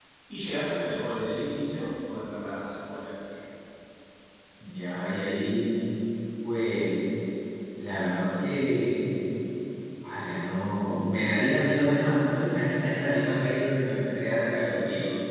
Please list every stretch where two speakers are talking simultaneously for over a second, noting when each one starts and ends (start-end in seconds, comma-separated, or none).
none